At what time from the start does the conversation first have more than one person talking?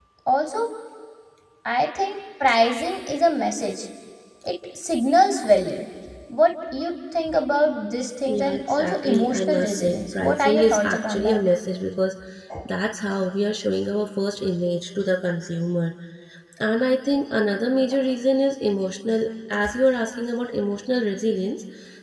8.3 s

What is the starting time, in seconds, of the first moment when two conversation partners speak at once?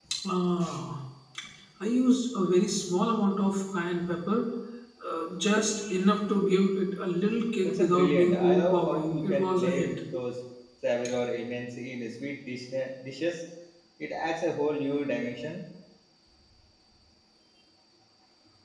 7.6 s

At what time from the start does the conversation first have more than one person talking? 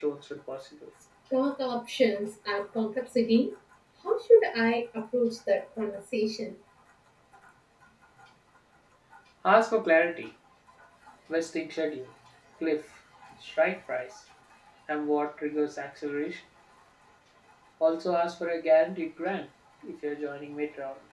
none

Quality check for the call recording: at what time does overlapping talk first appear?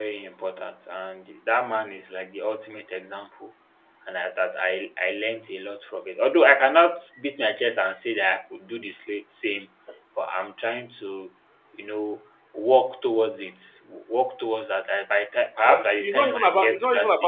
15.7 s

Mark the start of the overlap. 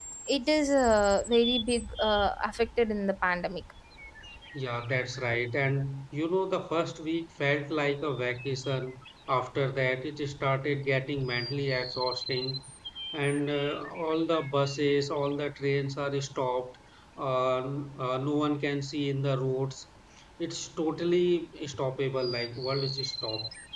none

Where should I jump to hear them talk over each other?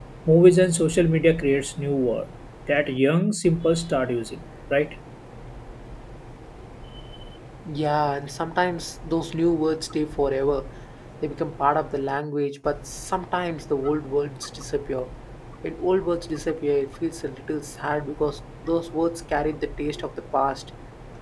none

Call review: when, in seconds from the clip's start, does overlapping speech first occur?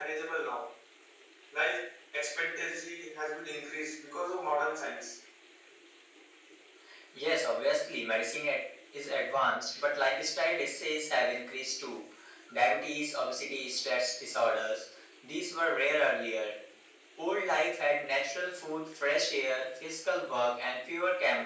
none

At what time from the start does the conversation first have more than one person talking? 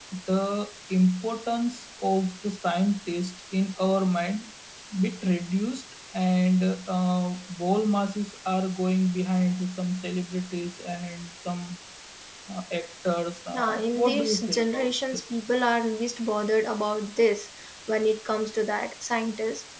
13.5 s

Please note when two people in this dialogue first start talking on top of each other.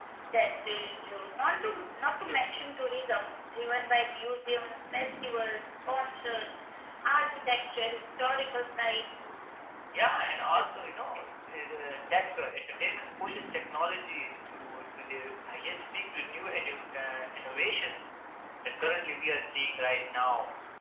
none

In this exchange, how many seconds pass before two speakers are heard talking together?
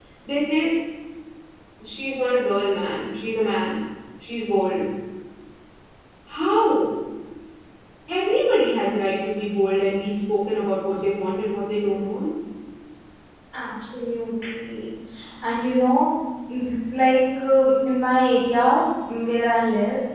none

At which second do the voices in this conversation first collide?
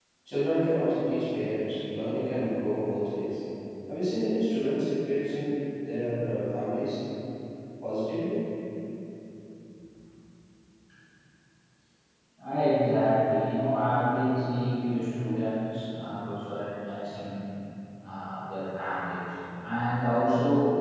none

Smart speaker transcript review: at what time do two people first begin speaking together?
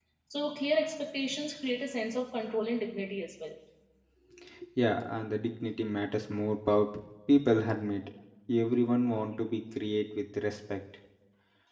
none

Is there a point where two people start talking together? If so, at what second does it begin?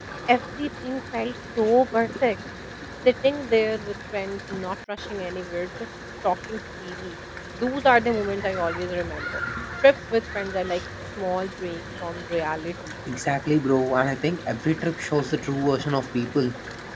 none

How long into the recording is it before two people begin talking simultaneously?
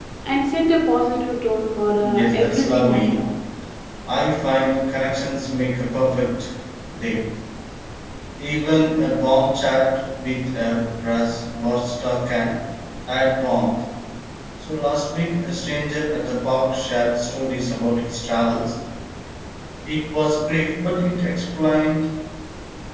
2.0 s

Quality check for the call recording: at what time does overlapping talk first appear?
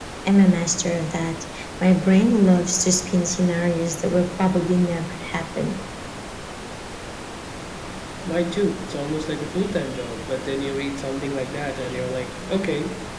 none

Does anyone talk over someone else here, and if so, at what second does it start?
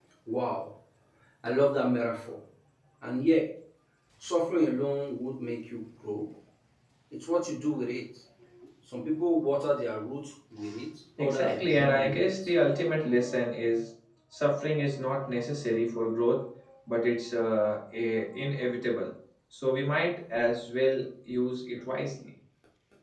11.2 s

